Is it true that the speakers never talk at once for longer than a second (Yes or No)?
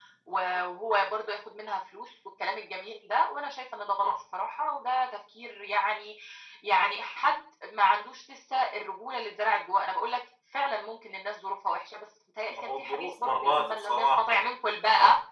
No